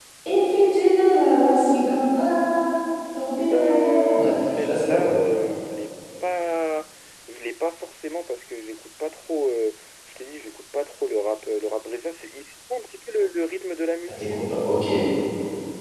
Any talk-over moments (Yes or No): Yes